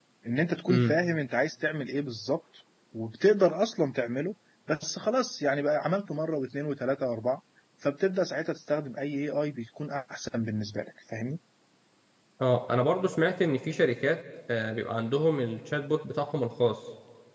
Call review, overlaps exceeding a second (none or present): none